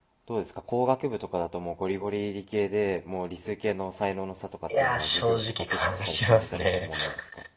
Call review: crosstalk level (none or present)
present